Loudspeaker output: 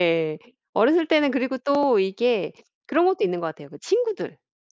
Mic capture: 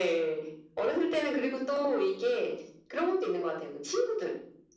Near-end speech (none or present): none